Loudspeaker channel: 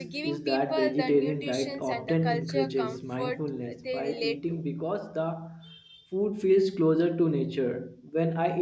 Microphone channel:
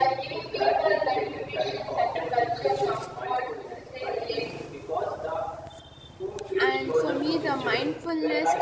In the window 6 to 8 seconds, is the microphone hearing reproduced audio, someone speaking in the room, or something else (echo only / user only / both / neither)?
both